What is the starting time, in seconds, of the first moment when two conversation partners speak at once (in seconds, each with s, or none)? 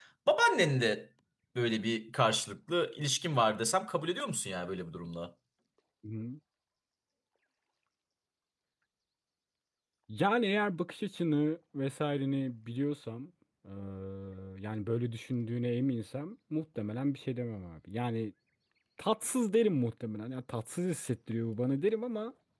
none